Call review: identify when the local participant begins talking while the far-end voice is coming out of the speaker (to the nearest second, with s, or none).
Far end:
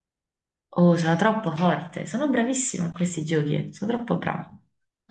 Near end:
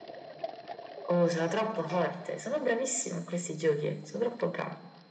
none